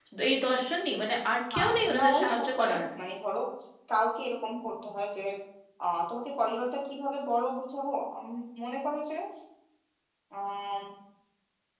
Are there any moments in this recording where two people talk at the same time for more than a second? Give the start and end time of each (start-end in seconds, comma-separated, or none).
1.5-2.8